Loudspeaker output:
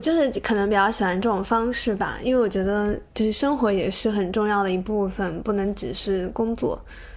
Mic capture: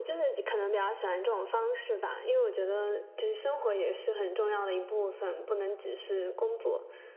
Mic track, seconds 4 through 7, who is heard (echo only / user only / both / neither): echo only